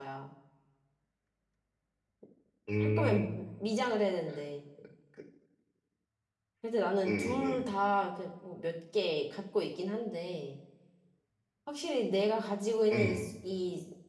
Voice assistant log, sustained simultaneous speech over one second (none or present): none